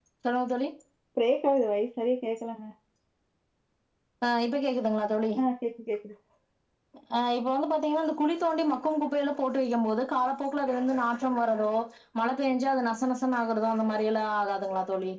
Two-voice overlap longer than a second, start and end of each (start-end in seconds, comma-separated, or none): none